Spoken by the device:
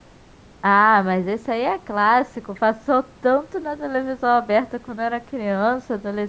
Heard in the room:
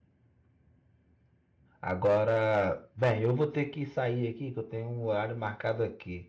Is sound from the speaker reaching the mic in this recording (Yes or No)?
No